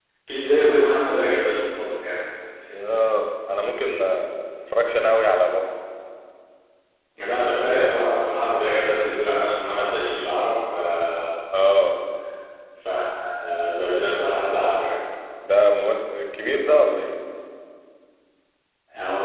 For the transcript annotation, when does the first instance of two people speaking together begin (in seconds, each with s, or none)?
none